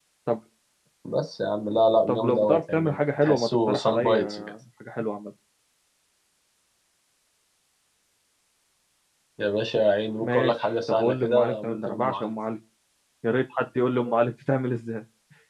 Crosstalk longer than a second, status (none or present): present